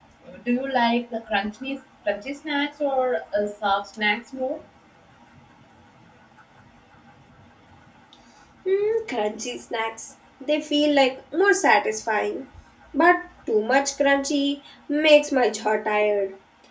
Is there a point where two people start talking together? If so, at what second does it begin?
none

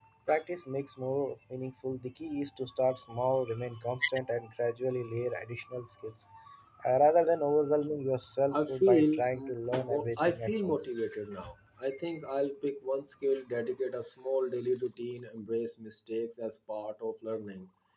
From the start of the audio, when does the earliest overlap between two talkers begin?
9 s

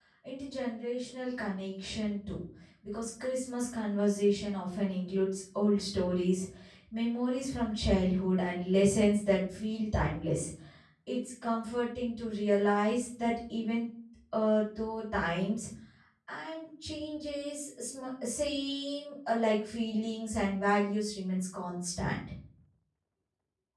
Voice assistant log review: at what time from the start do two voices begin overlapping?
none

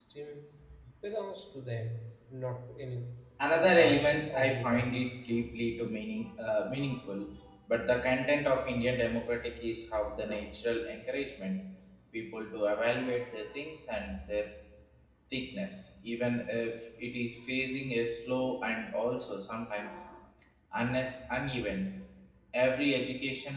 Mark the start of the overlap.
4 s

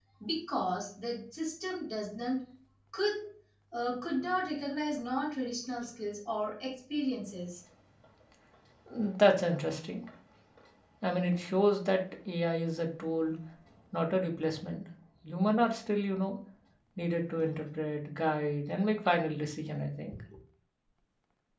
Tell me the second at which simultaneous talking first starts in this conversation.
none

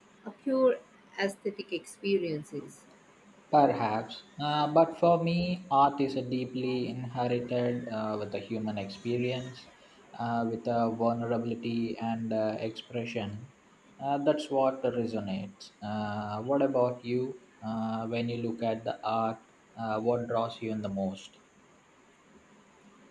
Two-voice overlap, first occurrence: none

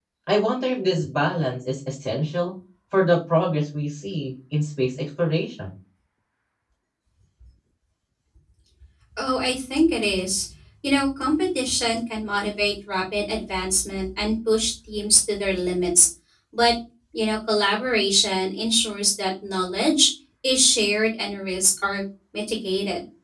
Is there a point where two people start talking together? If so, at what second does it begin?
none

